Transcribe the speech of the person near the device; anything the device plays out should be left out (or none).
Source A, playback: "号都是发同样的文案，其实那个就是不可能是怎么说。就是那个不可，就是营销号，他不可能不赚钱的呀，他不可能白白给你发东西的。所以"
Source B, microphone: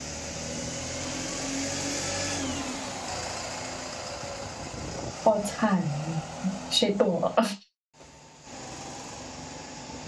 好惨啊，谁懂啊？